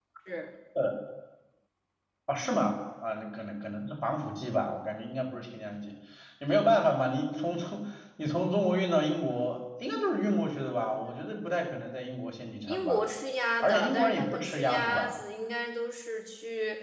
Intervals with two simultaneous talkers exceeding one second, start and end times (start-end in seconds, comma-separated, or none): 13.6-15.2